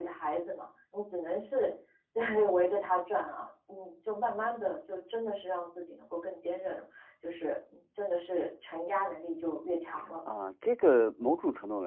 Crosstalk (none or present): none